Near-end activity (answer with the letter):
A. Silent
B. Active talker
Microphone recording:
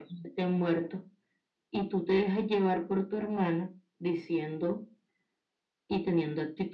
A